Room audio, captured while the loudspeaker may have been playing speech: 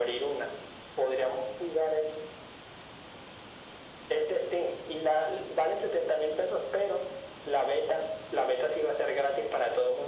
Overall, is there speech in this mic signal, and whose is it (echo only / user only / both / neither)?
echo only